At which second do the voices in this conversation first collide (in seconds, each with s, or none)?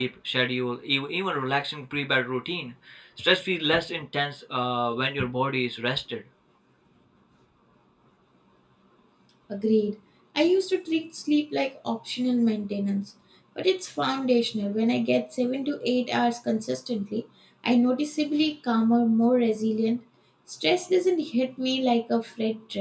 none